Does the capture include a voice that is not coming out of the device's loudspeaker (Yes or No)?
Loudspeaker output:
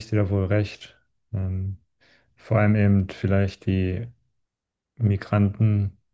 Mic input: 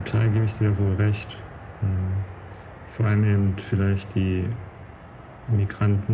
No